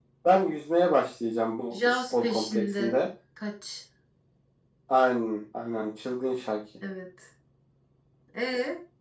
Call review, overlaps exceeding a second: present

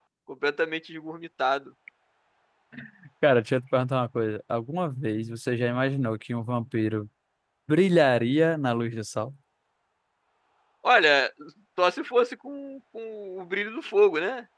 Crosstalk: none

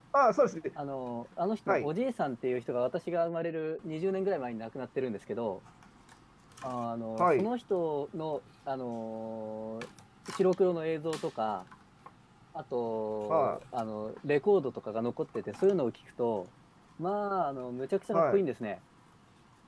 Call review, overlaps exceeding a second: none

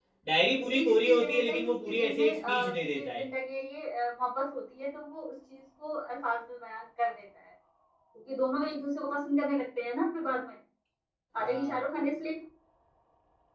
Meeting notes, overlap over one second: present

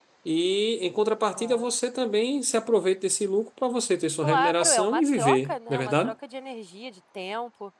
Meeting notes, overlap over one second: present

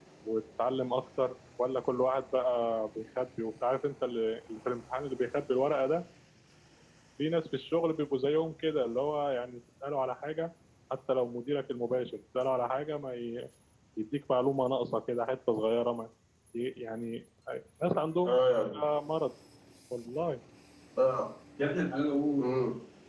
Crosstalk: none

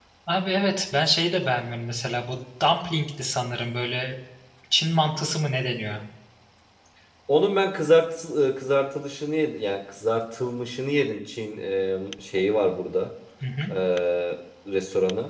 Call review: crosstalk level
none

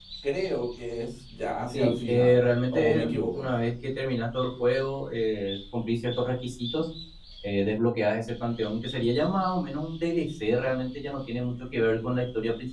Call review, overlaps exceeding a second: present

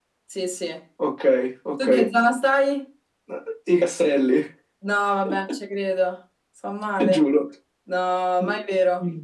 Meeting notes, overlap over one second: none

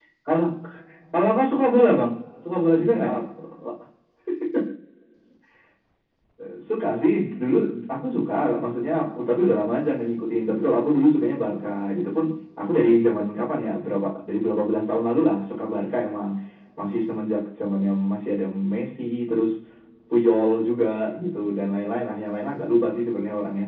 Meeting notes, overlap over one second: none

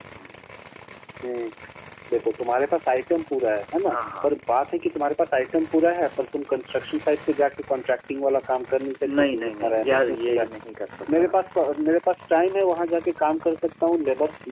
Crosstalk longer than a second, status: present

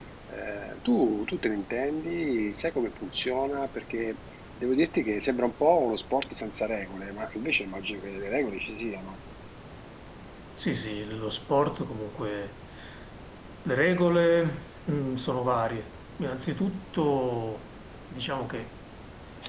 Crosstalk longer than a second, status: none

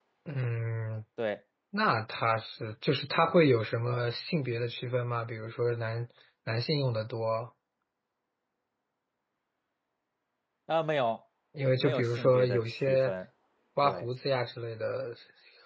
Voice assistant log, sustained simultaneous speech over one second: present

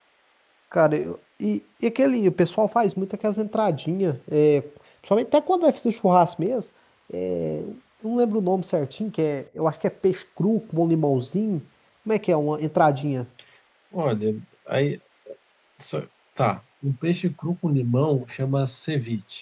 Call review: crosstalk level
none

